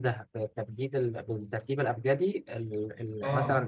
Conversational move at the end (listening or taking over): taking over